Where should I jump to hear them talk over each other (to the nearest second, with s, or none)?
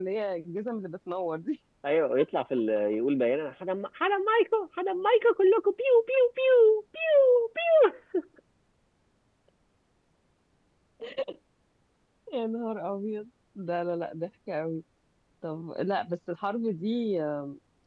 none